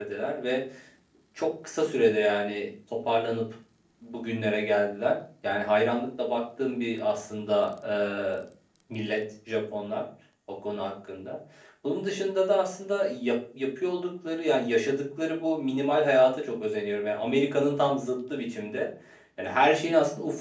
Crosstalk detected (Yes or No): No